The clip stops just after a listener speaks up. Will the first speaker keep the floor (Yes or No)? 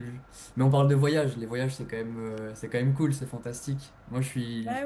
Yes